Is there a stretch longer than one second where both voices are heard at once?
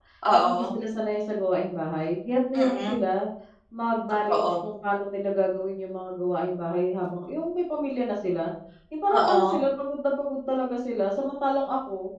No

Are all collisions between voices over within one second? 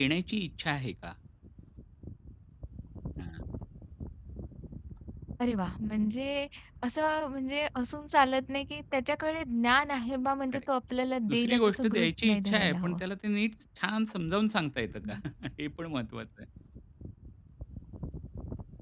No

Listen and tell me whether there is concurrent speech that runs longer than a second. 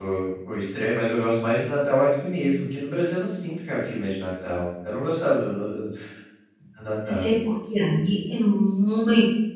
No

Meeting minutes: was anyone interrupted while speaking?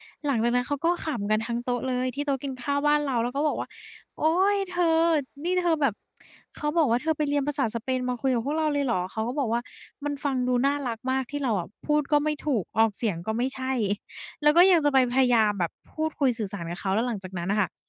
No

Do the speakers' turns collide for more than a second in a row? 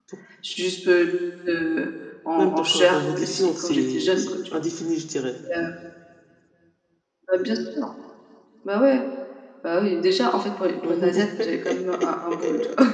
Yes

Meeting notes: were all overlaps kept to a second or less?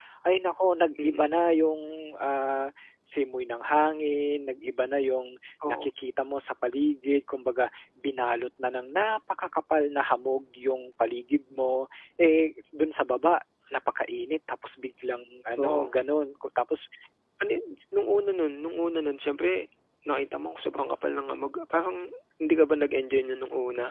Yes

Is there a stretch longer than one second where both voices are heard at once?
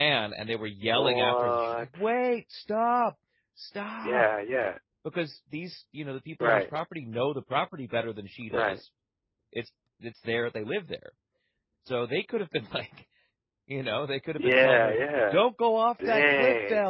Yes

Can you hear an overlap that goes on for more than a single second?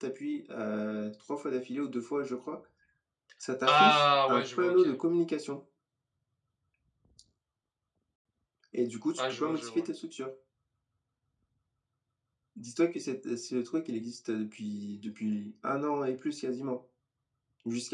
Yes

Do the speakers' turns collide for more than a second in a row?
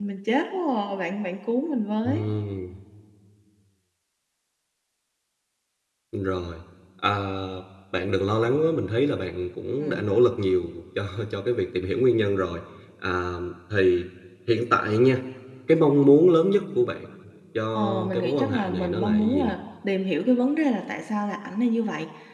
Yes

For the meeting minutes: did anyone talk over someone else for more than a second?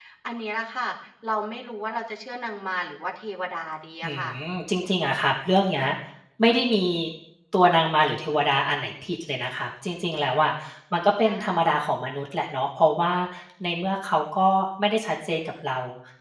No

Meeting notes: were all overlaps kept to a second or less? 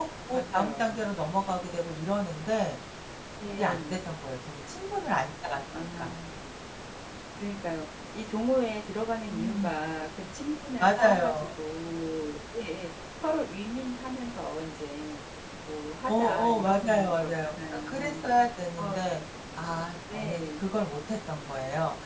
No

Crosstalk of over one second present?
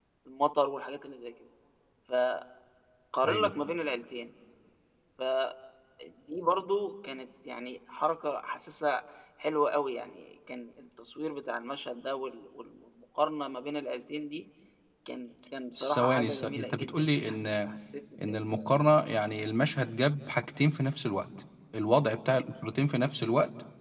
Yes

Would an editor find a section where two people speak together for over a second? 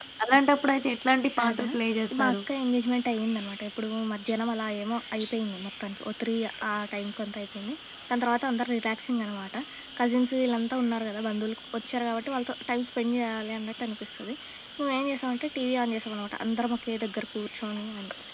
No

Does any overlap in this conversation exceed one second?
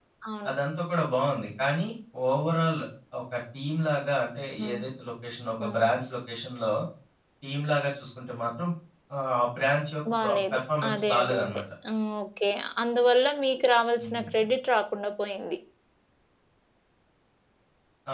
Yes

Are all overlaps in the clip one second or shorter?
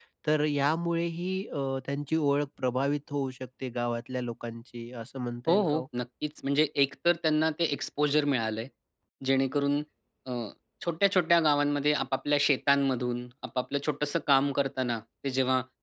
Yes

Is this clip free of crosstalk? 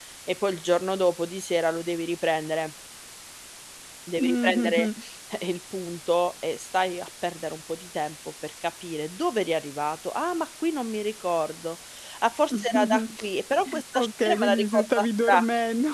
No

